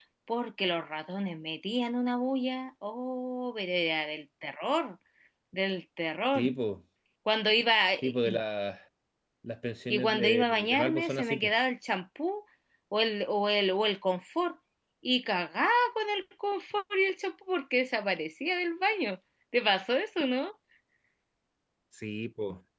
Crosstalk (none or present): present